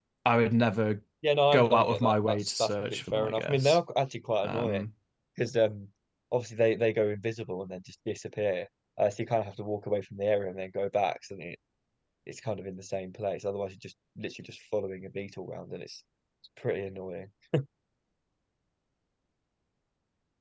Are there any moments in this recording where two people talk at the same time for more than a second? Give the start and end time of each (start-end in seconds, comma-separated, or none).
1.5-3.8